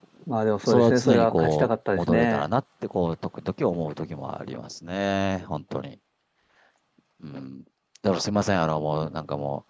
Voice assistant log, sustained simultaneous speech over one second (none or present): present